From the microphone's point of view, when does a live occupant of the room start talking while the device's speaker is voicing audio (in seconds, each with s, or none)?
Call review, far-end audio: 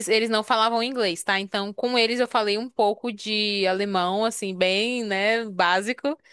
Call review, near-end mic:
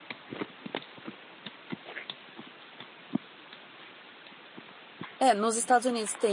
5.2 s